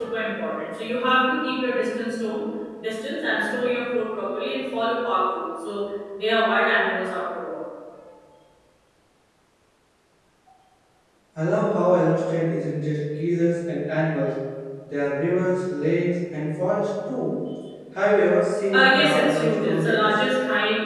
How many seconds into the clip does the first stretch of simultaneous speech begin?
19 s

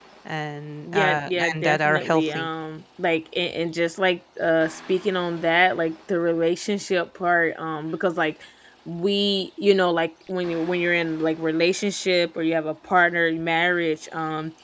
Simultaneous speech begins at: 1 s

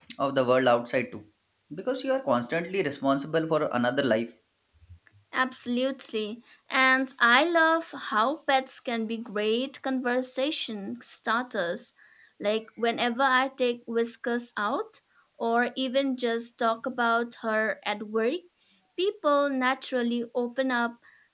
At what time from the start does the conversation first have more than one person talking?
none

